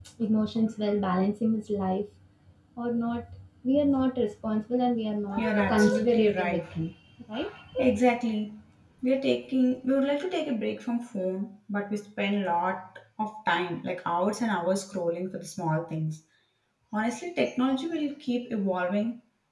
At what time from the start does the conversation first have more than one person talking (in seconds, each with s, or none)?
5.4 s